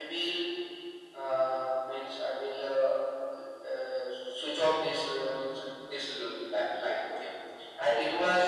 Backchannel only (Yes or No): Yes